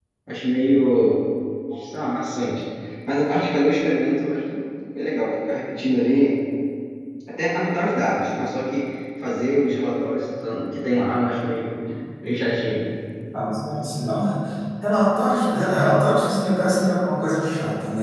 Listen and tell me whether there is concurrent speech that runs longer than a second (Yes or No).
No